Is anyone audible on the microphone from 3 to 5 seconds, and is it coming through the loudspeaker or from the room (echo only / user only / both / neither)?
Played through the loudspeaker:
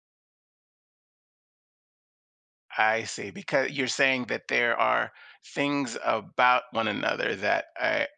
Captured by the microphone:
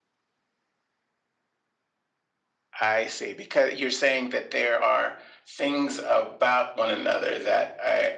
echo only